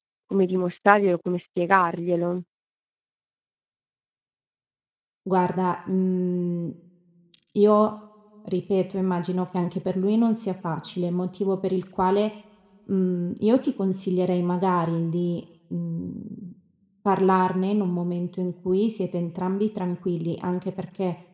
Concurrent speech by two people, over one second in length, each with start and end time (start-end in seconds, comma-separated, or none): none